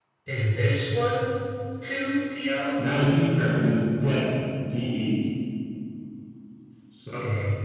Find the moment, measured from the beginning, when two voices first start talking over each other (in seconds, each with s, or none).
none